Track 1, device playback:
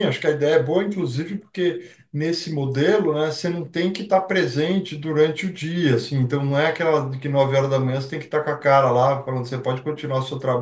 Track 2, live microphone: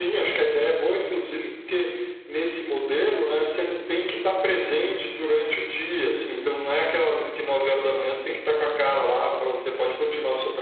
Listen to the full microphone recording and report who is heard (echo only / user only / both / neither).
echo only